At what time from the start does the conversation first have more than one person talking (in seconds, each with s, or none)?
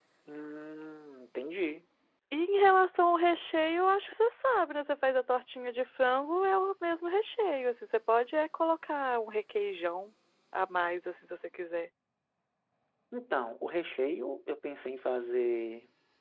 none